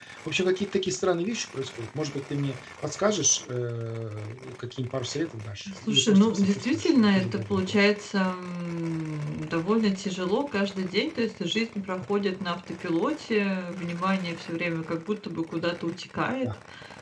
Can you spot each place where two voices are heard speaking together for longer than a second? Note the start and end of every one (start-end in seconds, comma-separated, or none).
5.9-7.8